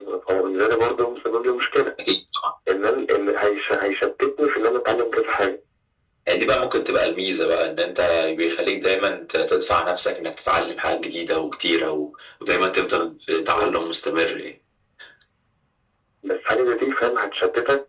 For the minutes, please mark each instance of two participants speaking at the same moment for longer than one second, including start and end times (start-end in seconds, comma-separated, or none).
none